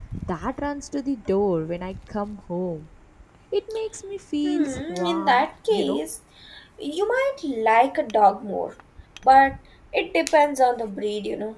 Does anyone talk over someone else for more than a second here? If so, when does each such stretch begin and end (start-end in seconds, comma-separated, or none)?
4.5-6.0